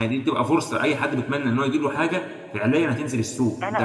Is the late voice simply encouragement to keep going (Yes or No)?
No